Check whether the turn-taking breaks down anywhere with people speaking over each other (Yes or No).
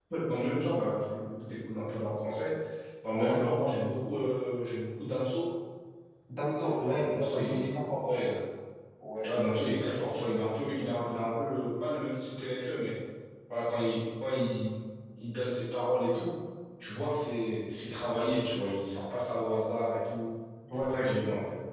Yes